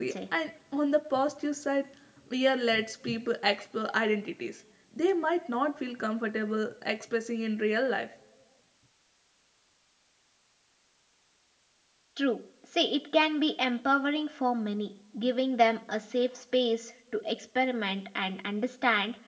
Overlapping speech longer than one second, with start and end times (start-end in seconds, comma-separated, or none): none